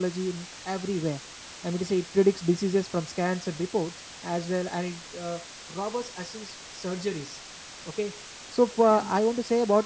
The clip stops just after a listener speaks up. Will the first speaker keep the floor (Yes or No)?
Yes